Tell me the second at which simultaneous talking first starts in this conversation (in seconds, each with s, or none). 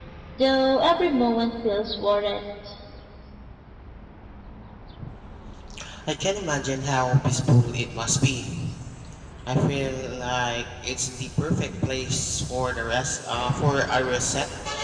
none